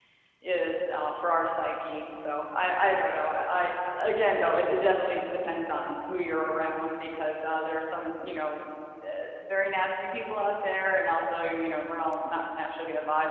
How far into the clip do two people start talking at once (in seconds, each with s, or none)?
none